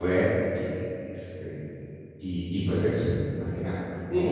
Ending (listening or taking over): taking over